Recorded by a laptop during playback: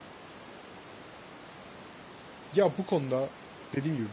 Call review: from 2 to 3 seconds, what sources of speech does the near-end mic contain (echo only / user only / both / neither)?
user only